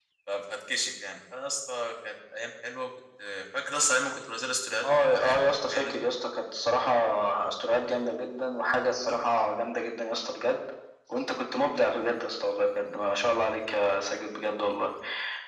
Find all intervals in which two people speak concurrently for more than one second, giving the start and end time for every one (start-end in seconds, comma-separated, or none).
4.8-6.0